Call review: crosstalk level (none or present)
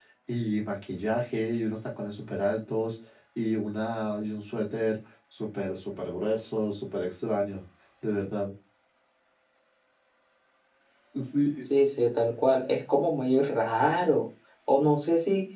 none